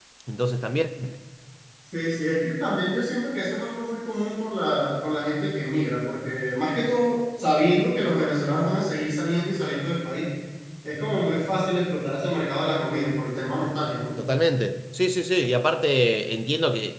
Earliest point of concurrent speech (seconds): none

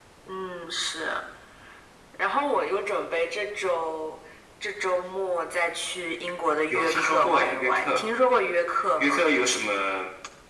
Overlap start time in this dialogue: 6.7 s

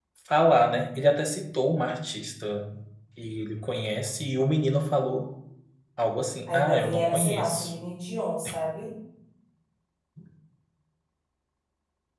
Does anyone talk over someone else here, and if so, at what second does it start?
6.5 s

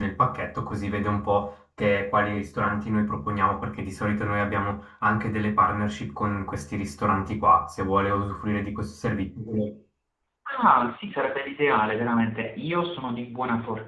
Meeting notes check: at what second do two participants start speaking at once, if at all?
none

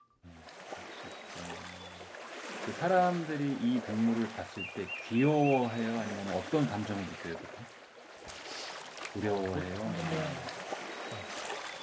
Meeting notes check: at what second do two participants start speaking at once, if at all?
9.2 s

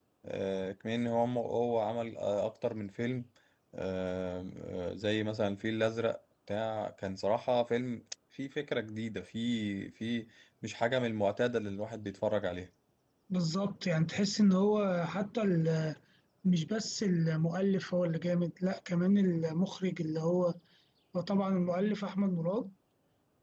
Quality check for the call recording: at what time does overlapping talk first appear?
none

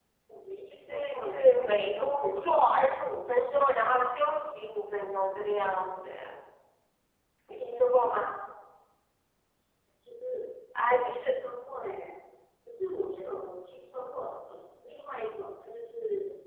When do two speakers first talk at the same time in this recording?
0.7 s

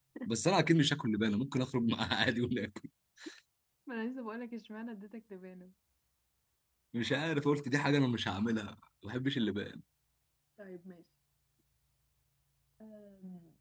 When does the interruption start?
none

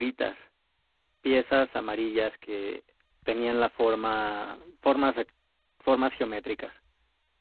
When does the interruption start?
none

